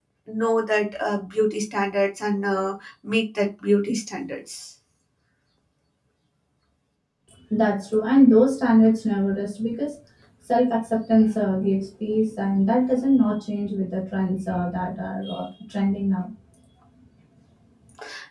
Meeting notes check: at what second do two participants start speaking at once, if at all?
none

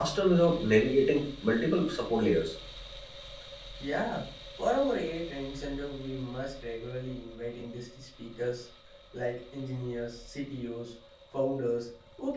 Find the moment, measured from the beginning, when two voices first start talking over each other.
none

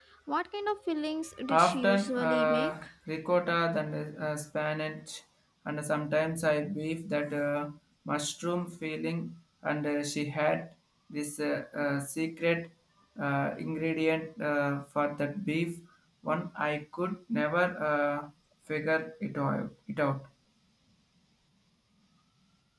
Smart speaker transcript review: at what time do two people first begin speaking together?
1.5 s

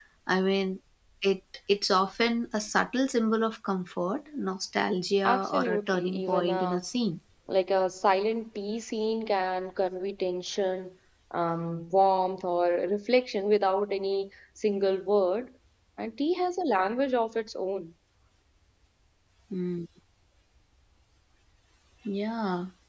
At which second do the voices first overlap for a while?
5.2 s

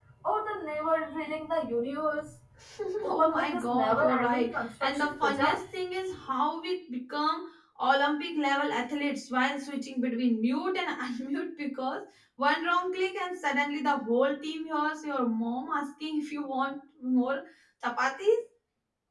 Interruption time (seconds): 3.1 s

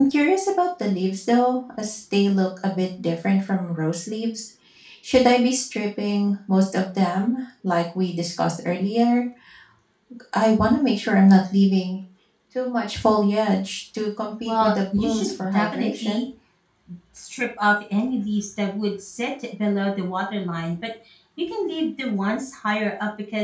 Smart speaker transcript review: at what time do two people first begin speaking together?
14.4 s

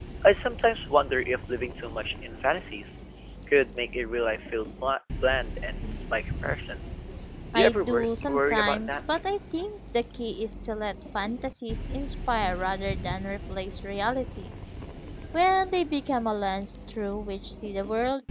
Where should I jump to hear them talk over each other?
7.5 s

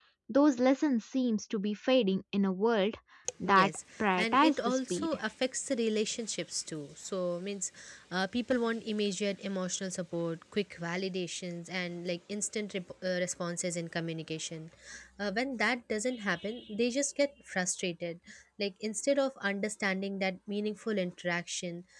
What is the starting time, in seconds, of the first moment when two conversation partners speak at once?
3.4 s

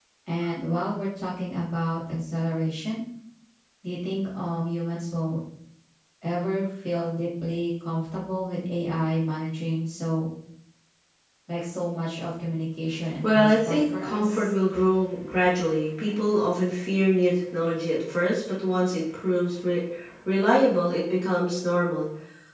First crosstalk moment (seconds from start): 13.2 s

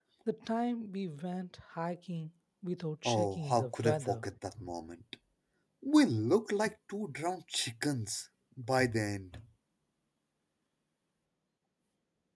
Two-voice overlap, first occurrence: 3.0 s

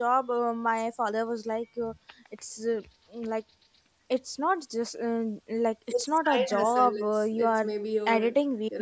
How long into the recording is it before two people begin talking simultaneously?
5.9 s

